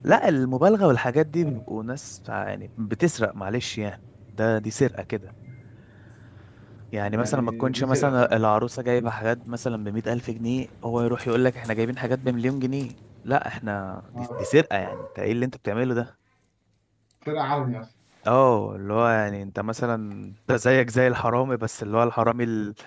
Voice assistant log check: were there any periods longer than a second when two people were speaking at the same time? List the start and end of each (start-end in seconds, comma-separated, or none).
7.0-8.4